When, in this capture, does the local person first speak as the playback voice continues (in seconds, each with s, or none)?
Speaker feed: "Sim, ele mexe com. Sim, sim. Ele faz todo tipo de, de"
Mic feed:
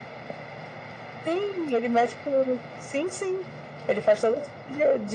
none